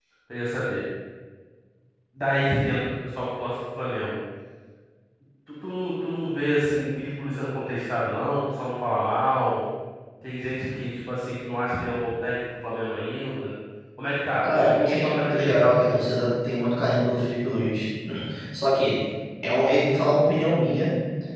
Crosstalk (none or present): present